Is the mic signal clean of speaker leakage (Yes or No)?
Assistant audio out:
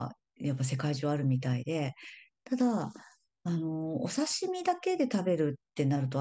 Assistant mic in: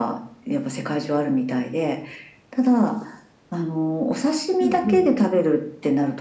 No